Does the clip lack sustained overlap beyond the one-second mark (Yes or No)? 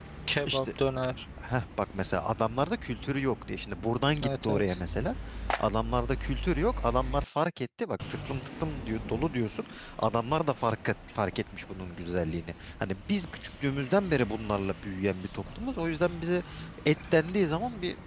Yes